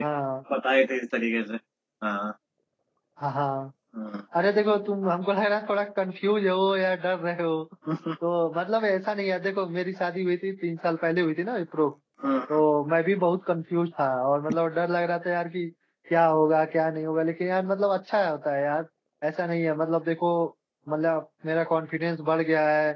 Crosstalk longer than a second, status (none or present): none